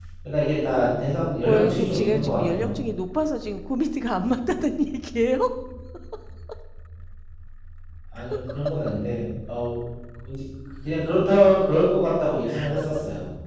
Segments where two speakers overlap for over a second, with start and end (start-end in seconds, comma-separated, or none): 1.4-2.7